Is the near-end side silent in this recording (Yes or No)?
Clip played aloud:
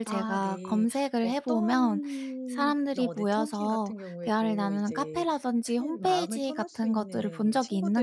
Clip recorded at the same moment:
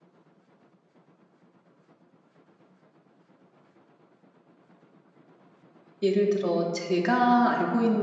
No